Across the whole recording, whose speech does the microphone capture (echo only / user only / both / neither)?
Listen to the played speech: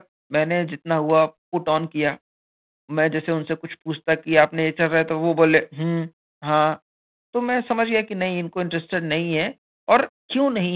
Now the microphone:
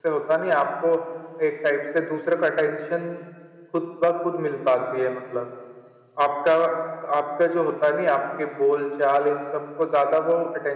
user only